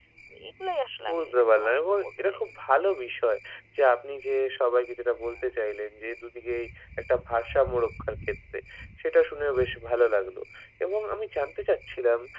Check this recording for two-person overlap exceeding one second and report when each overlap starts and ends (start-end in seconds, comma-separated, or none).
1.1-2.4